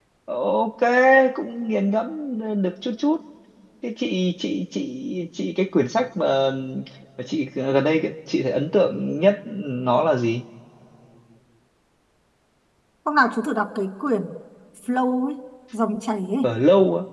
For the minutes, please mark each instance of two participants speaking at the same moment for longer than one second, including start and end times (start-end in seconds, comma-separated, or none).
none